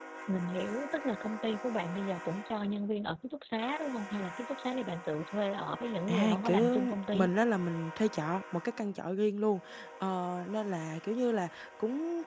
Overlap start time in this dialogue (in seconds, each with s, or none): 6.1 s